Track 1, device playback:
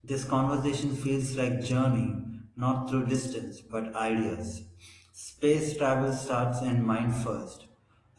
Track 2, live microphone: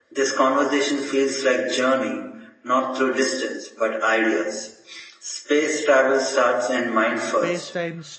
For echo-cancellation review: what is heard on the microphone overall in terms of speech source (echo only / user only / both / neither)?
both